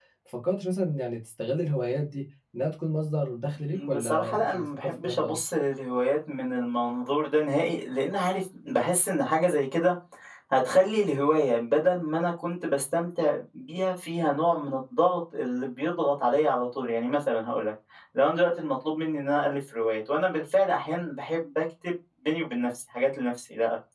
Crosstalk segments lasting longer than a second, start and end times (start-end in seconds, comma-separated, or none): 3.7-5.4